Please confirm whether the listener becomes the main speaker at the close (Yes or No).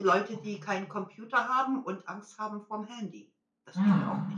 Yes